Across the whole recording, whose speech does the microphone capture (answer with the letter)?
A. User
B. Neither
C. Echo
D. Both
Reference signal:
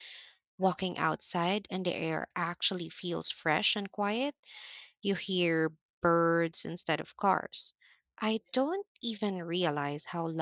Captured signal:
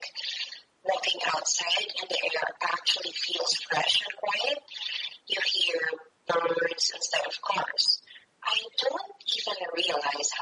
C